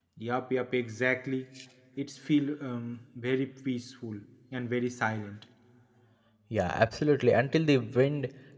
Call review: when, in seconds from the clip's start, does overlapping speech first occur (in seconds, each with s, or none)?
none